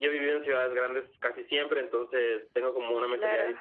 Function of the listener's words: listening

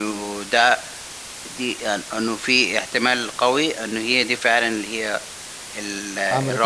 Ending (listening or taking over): listening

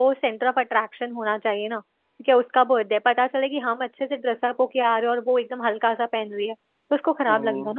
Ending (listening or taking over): taking over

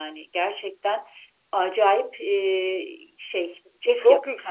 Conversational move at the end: taking over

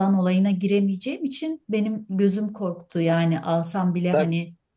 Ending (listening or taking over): taking over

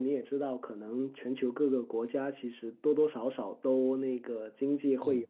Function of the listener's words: listening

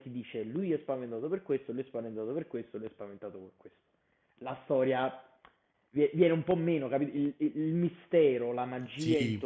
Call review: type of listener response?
listening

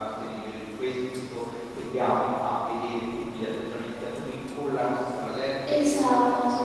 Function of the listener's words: listening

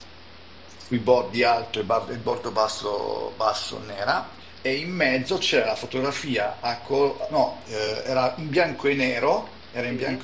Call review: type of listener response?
listening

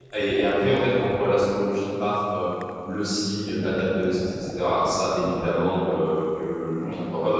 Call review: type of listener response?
listening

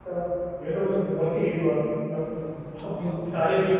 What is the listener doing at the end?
listening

